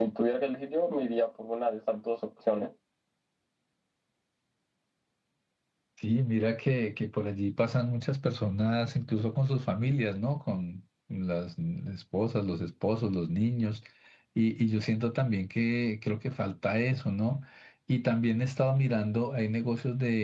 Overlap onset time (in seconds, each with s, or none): none